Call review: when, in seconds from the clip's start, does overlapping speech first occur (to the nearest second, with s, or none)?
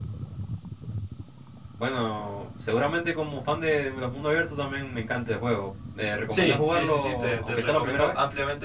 6 s